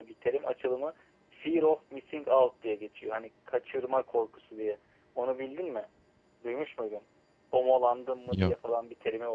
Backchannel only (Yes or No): Yes